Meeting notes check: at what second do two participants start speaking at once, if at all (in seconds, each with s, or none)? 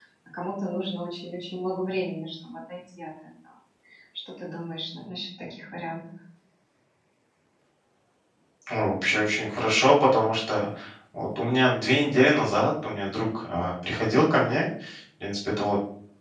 none